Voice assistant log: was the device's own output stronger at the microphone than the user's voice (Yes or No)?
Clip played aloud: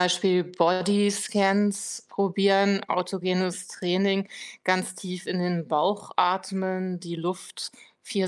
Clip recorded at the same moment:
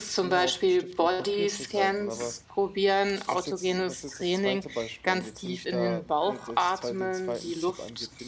Yes